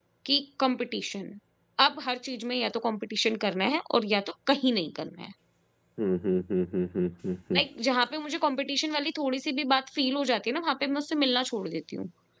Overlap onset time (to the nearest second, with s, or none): none